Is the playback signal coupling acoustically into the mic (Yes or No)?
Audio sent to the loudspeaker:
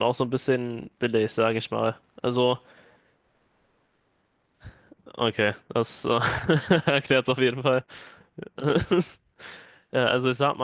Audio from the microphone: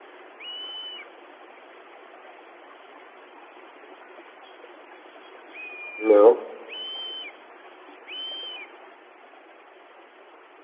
No